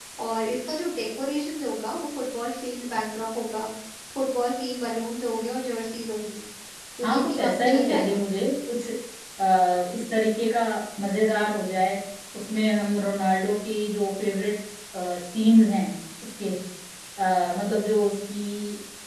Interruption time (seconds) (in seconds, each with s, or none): 7.0 s